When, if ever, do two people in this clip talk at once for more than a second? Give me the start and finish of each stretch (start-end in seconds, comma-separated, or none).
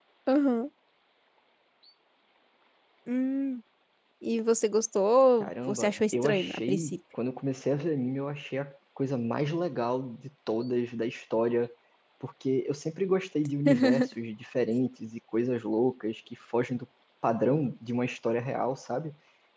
5.4-7.0